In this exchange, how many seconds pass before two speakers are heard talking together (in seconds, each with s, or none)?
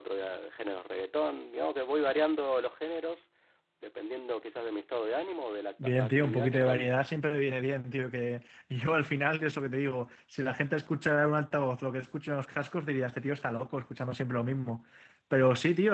5.8 s